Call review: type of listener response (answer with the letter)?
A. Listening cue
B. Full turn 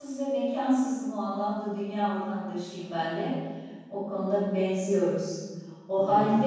A